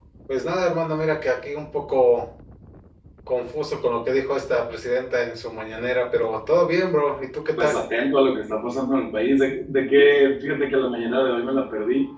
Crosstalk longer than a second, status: none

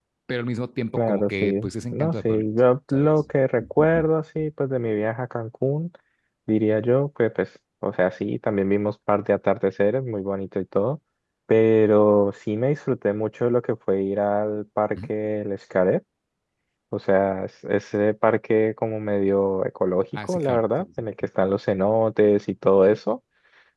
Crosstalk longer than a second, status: present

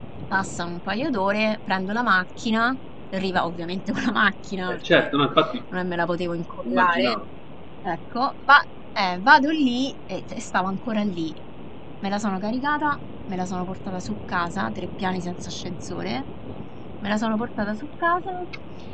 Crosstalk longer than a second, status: none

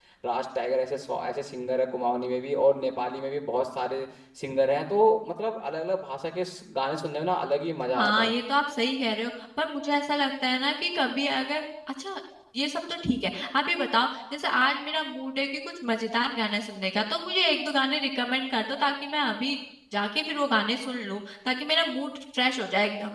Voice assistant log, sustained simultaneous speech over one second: none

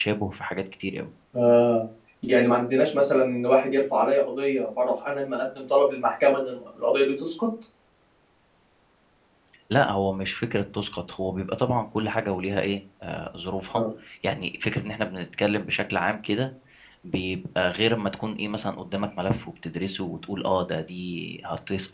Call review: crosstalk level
none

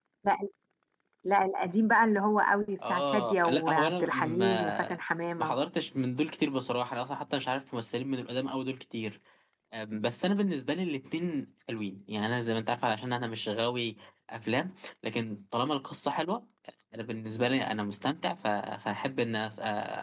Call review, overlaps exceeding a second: present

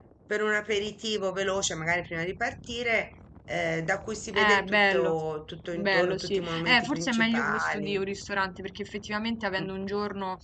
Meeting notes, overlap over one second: present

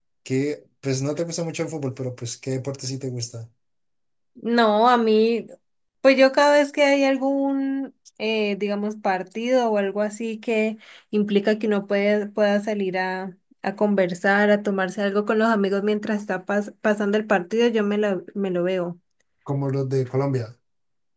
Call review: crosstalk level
none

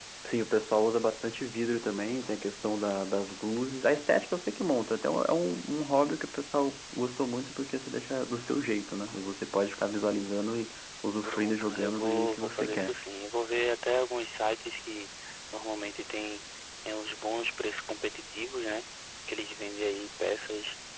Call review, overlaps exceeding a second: present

